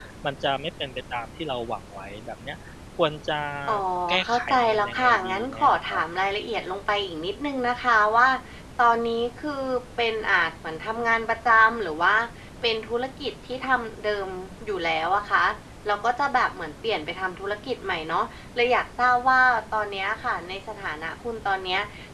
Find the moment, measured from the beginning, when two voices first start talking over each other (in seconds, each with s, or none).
4.2 s